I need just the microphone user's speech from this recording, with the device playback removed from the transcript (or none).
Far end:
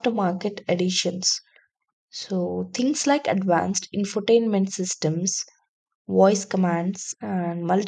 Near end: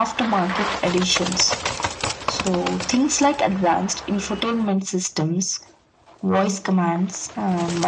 none